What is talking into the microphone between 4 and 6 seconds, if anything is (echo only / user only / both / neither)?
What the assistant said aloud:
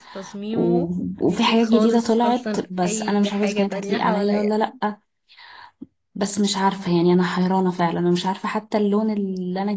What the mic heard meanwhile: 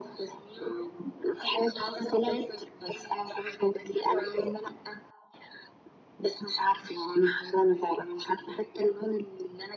echo only